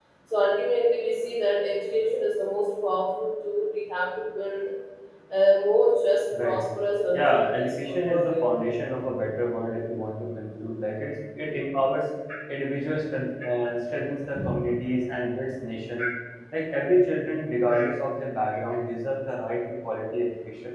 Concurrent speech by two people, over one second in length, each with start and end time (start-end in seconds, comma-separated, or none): 7.1-8.7